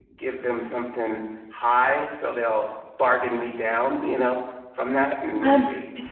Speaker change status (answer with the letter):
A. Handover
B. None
A